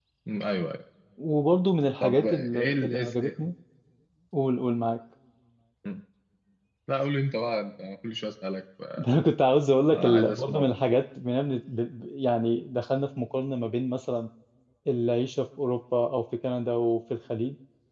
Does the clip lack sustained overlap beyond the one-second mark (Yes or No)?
No